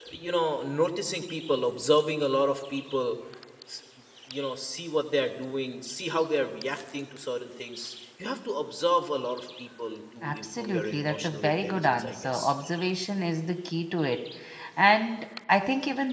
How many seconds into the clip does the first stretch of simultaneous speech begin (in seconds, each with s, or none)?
10.2 s